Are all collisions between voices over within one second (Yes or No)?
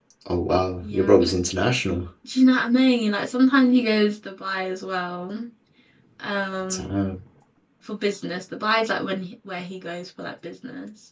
Yes